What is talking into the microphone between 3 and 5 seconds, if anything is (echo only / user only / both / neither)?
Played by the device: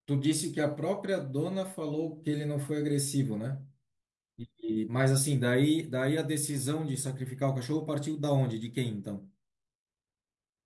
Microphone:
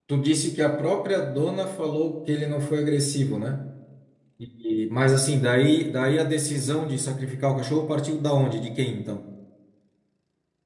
echo only